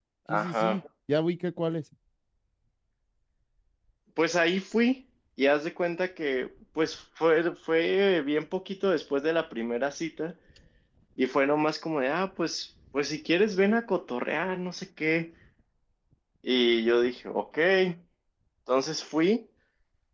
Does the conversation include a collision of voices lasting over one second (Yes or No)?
No